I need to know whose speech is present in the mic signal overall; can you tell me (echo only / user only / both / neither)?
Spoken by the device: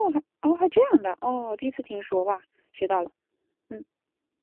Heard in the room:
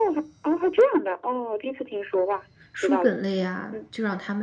both